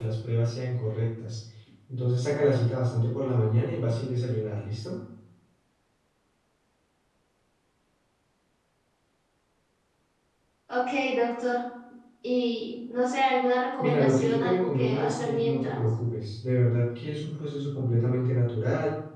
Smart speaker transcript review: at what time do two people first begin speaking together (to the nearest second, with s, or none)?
14 s